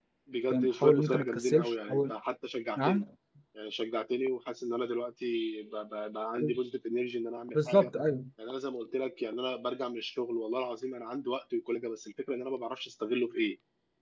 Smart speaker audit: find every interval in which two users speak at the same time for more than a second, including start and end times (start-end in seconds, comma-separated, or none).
0.5-2.1